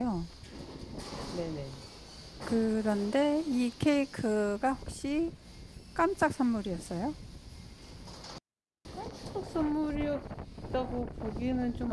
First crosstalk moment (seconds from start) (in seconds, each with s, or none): none